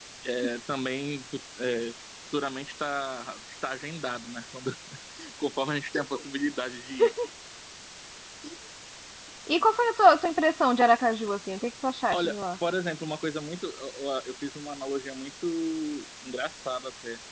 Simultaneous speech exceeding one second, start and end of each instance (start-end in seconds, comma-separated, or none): none